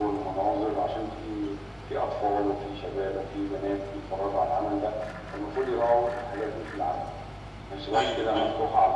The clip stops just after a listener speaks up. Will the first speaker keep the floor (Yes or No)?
Yes